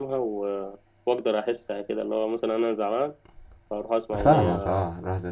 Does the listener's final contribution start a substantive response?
Yes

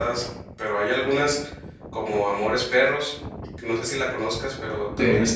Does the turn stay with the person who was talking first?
No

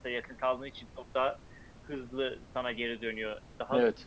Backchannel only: Yes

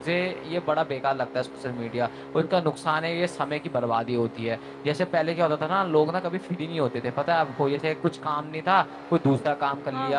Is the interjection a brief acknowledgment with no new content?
Yes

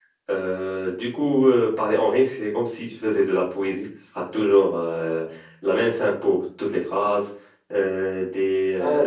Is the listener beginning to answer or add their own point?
No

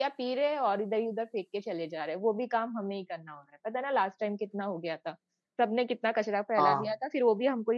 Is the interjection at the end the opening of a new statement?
No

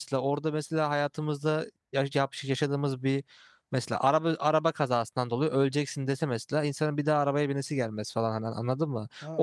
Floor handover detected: Yes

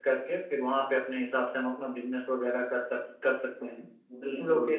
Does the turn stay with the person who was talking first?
Yes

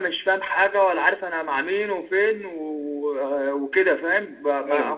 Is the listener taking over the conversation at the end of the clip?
No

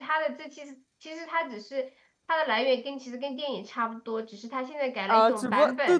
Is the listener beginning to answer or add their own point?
Yes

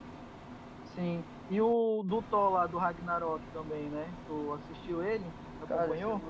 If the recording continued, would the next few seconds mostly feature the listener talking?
Yes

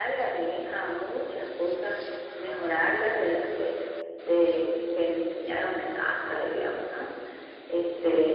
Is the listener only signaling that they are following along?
No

